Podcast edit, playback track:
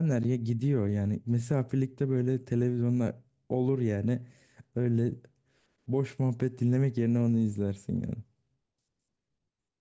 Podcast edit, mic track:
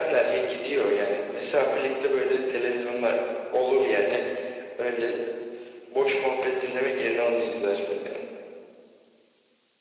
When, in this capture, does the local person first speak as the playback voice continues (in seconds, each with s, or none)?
none